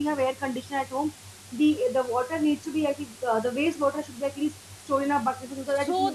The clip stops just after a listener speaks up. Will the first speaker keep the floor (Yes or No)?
No